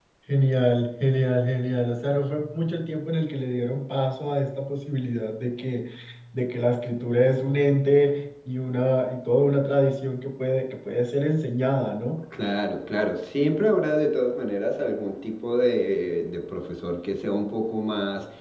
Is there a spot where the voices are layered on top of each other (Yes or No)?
No